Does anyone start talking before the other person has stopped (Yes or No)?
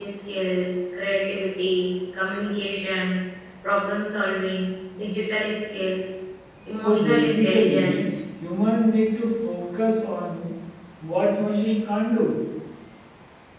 Yes